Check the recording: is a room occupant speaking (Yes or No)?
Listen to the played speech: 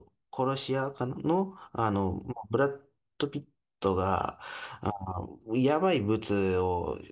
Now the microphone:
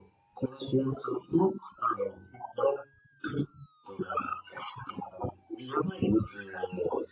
No